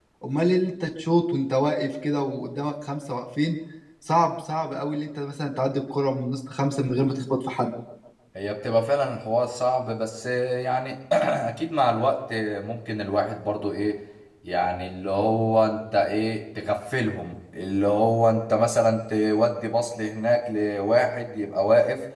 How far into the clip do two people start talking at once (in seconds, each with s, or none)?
none